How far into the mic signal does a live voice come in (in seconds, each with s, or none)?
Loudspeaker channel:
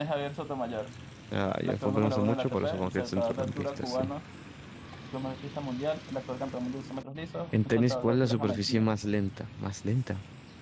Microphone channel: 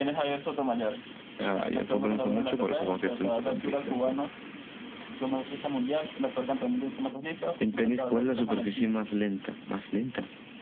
none